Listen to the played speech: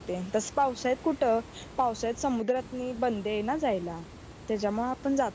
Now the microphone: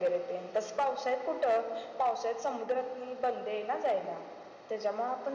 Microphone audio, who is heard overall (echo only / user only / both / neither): echo only